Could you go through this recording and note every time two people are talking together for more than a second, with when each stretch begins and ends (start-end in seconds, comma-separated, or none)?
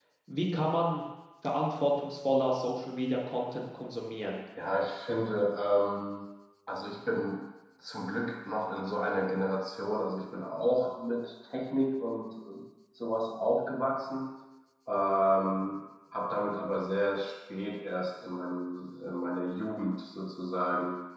none